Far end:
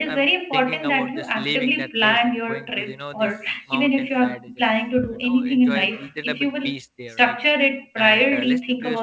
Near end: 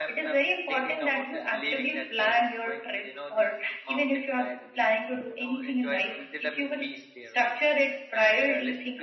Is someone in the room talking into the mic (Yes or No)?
No